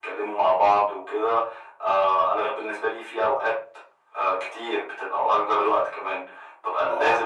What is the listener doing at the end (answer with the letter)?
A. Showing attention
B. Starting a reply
A